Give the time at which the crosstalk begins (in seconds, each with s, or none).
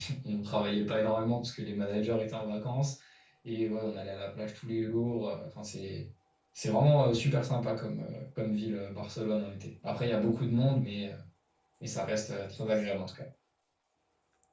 none